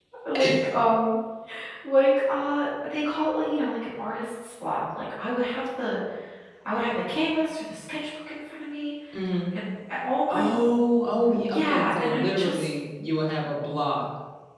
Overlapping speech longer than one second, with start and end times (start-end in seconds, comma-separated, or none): 11.2-12.7